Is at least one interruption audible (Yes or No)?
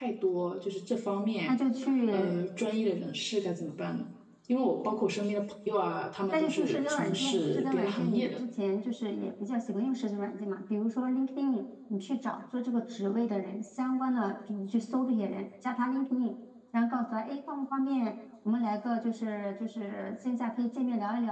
Yes